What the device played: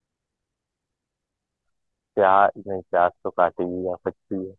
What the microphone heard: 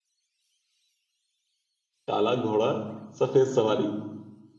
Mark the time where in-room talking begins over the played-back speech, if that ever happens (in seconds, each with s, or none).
2.1 s